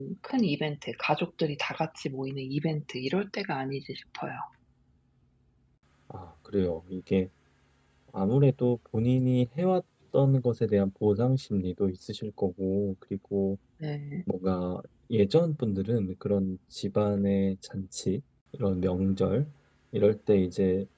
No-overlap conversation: Yes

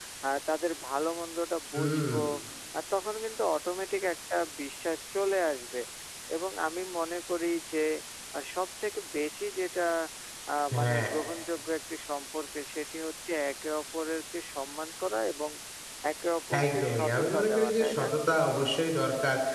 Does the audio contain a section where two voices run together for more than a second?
Yes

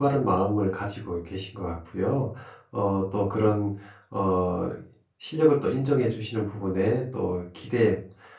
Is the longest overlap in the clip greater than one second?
No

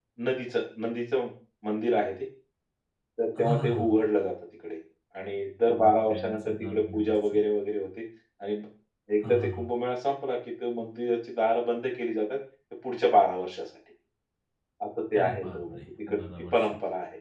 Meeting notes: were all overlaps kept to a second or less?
No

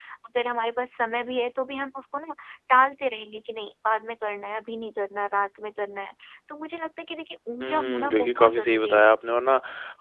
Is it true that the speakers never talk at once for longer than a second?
No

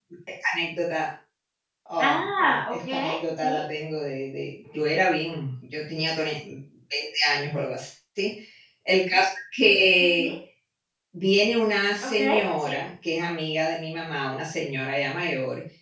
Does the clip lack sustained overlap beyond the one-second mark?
No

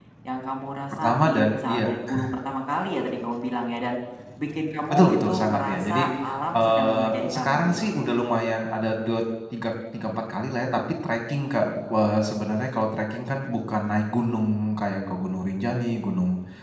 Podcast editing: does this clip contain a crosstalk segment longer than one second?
Yes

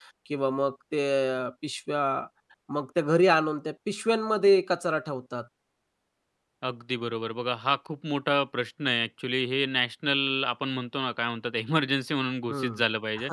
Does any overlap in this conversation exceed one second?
No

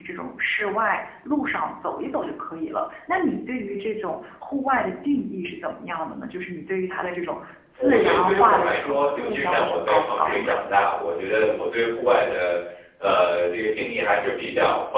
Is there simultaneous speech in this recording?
Yes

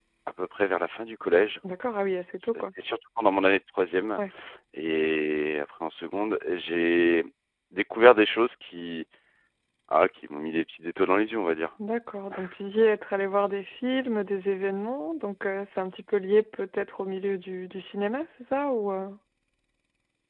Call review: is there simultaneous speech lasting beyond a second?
No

